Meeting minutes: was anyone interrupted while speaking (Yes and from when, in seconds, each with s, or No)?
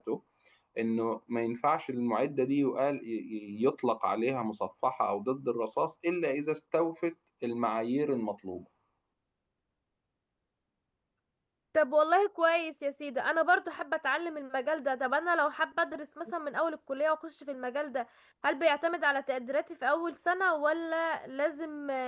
No